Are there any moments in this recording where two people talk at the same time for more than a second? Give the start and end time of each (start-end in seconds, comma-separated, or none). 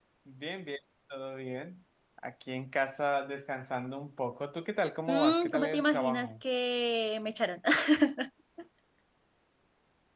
5.1-6.3